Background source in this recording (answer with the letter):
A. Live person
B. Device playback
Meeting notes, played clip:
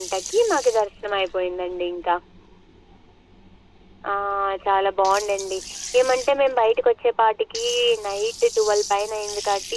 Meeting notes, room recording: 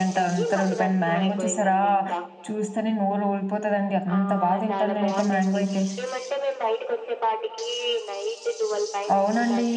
B